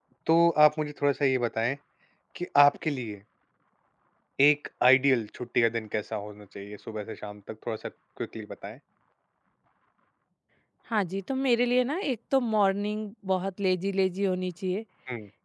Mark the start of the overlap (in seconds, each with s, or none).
none